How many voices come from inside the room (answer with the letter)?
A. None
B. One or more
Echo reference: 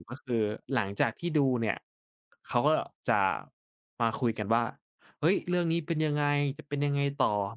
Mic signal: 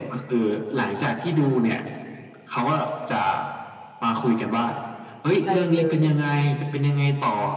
B